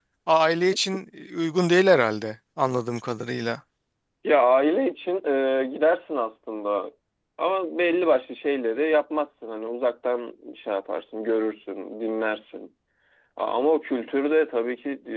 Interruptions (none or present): none